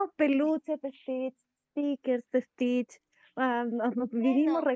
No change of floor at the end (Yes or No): Yes